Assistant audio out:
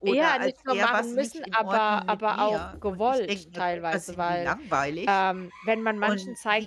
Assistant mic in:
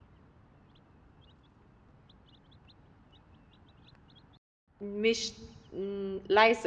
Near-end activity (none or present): present